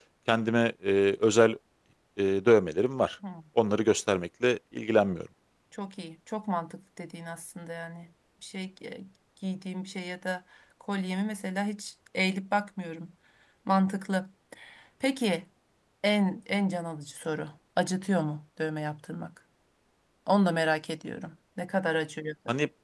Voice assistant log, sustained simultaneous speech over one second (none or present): none